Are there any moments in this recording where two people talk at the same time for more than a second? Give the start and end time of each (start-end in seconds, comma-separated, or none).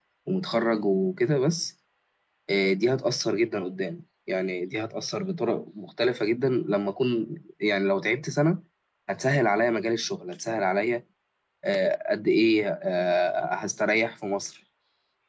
none